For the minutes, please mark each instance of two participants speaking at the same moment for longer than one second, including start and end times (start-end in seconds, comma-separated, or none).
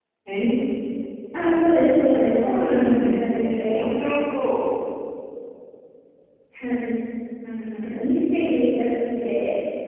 2.2-3.8